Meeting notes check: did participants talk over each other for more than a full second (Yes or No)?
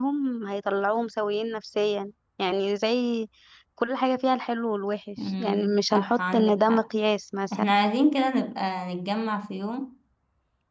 Yes